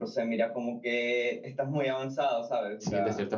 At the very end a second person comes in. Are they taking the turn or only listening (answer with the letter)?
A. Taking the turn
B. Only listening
A